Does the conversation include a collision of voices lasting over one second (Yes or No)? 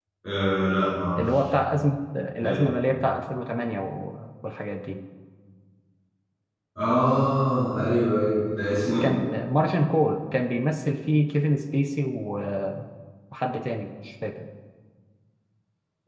No